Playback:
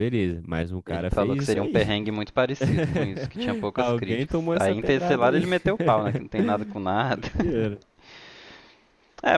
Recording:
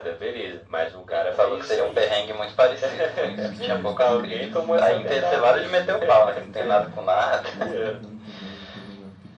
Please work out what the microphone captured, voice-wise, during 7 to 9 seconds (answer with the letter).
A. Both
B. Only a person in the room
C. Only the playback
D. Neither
A